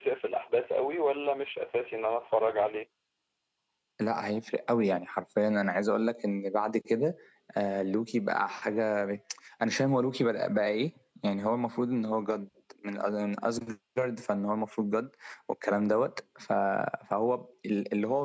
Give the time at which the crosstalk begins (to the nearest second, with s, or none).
none